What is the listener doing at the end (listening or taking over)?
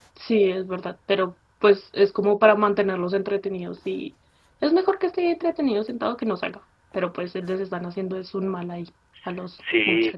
taking over